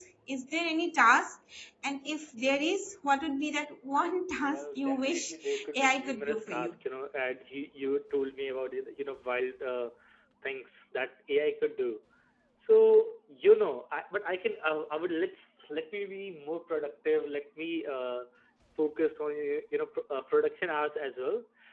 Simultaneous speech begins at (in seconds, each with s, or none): 4.4 s